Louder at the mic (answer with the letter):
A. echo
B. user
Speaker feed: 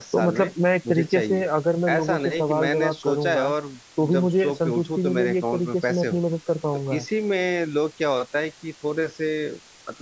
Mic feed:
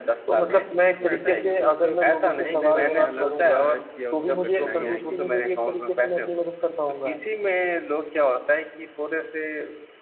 A